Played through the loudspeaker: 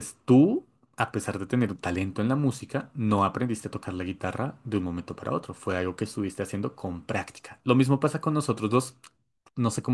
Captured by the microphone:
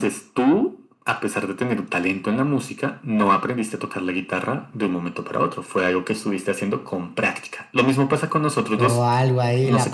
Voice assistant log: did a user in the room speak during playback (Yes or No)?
Yes